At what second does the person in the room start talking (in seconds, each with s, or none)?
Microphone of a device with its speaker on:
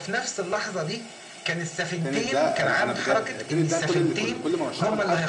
2.0 s